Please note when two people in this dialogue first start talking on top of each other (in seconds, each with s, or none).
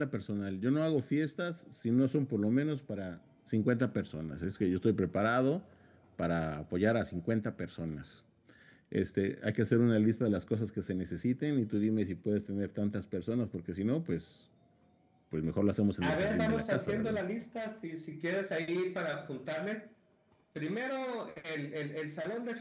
16.0 s